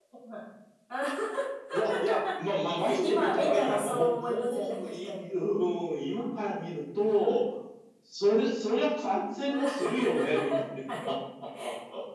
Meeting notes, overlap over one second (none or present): present